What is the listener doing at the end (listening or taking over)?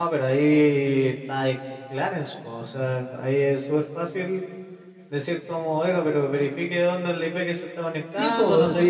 taking over